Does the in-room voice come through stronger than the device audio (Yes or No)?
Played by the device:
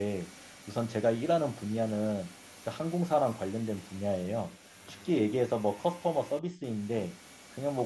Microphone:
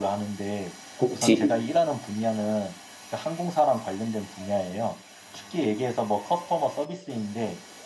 Yes